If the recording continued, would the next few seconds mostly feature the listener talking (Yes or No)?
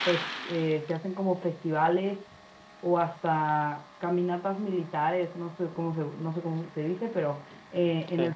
No